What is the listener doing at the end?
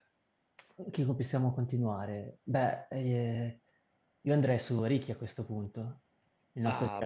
taking over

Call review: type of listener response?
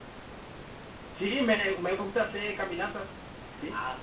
taking over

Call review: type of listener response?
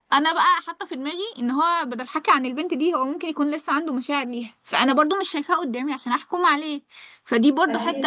listening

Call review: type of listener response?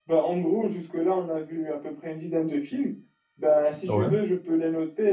listening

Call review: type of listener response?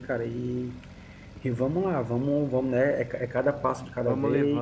taking over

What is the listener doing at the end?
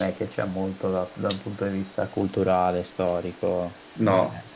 taking over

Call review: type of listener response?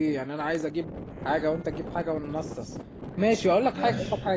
listening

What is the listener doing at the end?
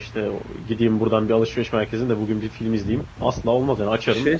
taking over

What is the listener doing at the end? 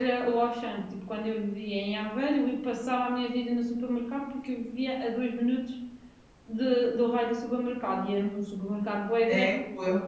taking over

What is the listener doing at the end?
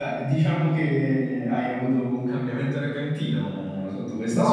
taking over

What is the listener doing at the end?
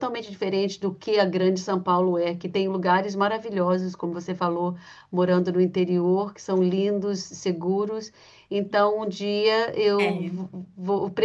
listening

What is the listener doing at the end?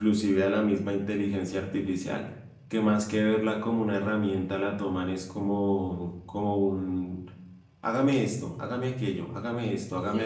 listening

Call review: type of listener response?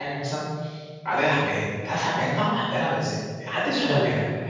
taking over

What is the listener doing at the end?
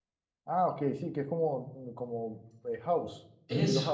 taking over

